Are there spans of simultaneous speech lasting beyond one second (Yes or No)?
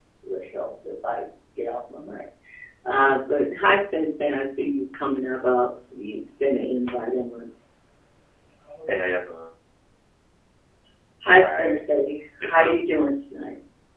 No